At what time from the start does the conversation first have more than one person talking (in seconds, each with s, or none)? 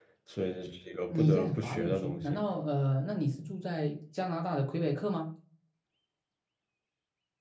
1.1 s